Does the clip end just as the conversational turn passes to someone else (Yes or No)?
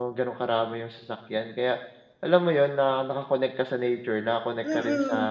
Yes